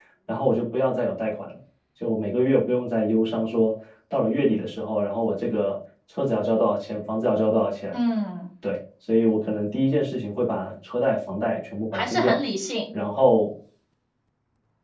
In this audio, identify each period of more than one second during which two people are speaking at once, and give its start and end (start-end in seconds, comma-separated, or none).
none